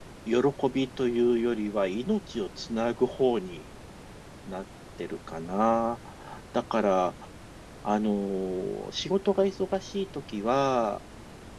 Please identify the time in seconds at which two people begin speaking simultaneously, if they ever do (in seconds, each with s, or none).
none